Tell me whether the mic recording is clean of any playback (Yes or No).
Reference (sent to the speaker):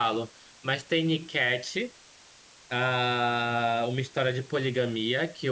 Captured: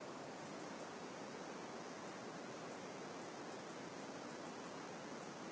Yes